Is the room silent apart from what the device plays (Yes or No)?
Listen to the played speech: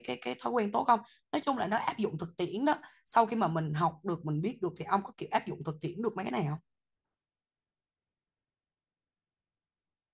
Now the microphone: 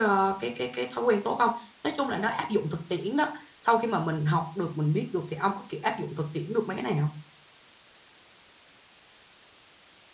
Yes